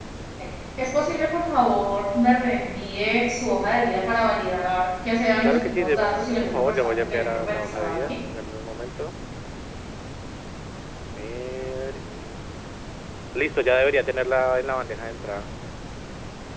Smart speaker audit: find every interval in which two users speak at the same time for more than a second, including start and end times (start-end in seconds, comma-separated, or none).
5.4-8.2